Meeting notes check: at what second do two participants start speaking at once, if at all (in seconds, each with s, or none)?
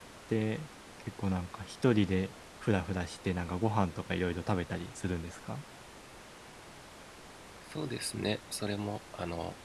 none